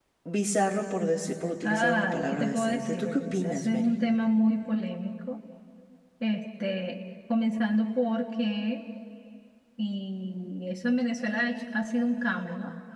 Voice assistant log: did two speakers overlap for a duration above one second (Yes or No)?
Yes